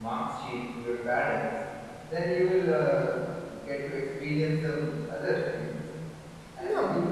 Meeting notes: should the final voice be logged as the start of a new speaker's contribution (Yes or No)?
No